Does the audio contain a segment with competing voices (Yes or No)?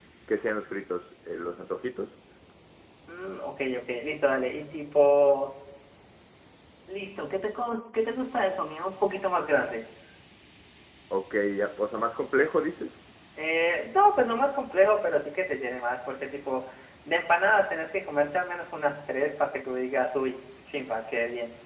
No